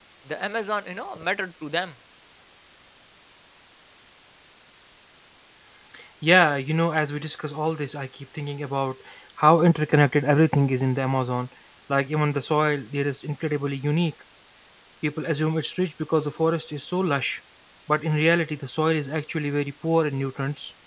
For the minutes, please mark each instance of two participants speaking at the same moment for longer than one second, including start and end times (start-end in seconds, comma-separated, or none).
none